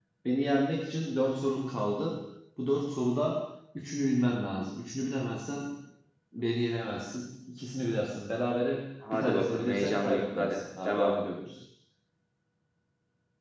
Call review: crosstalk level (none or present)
present